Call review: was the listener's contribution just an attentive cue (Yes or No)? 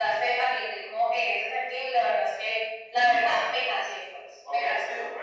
No